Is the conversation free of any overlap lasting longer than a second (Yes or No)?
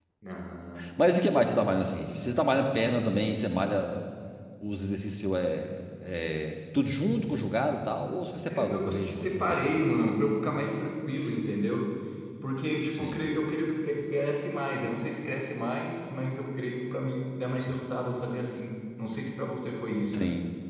No